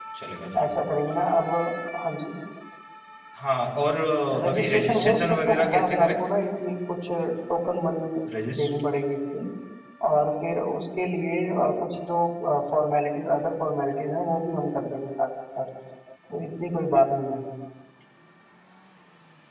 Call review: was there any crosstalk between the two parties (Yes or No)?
Yes